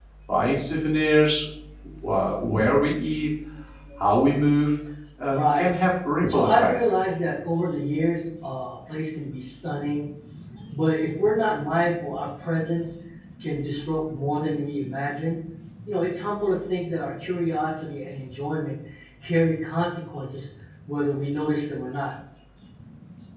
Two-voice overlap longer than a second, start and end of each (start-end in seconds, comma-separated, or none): none